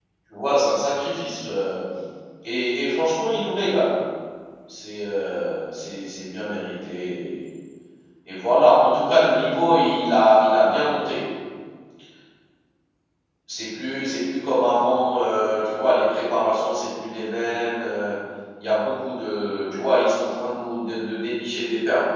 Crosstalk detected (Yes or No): No